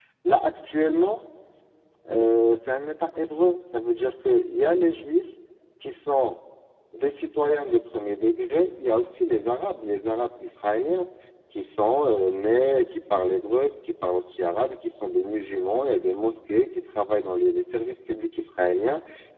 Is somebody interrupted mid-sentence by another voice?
No

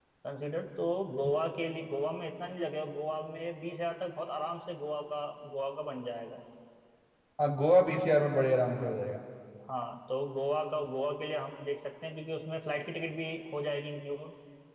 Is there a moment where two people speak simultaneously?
No

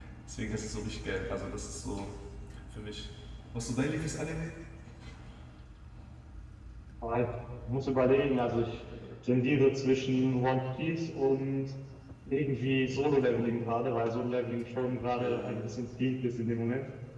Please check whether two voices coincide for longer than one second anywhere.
No

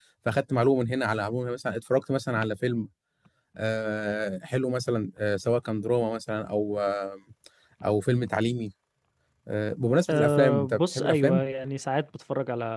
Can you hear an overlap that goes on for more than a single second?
Yes, from 10.1 s

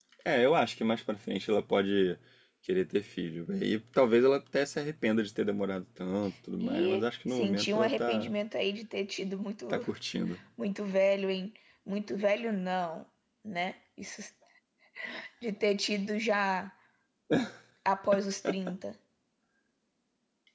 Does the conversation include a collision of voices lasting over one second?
Yes, from 6.6 s

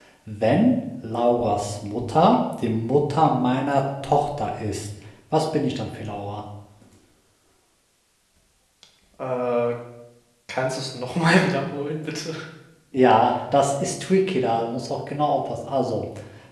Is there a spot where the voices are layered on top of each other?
No

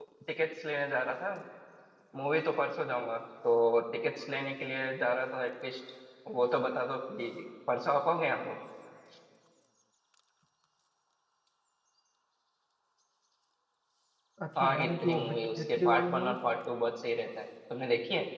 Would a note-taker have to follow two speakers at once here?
Yes, from 14.6 s

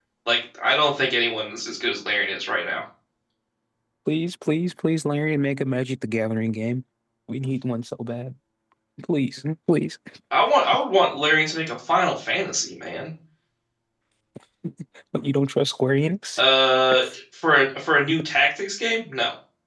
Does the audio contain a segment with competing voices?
No

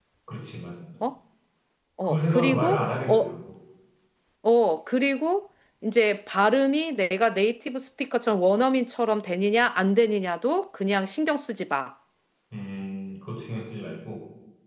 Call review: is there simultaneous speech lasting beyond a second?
Yes, from 2.0 s

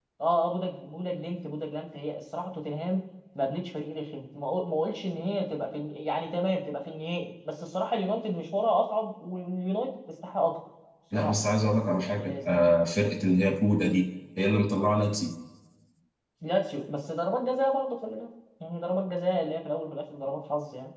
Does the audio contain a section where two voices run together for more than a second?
No

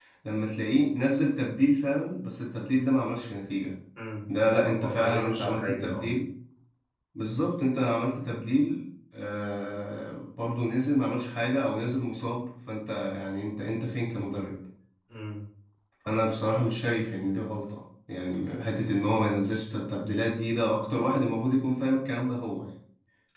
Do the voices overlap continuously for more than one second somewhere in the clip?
Yes, from 4.6 s

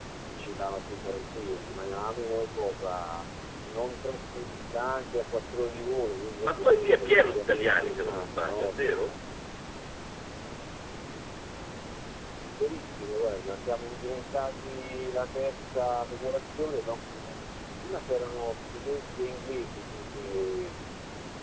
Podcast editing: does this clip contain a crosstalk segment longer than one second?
Yes, from 6.4 s

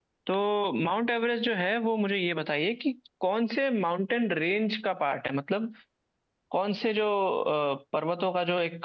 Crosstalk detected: No

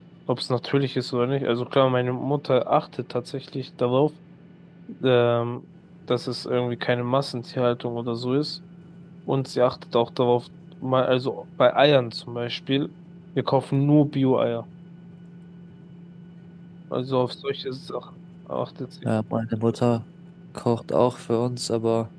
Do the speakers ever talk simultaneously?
No

